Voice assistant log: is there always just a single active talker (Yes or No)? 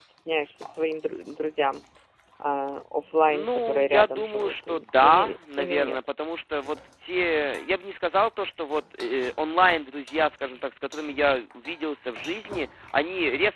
No